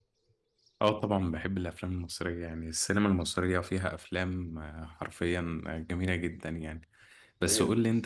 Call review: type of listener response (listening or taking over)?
listening